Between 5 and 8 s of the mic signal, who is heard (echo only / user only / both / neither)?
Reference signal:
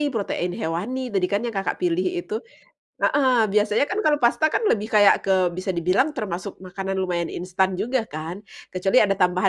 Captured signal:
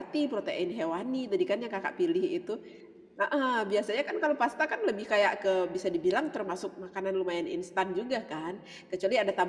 echo only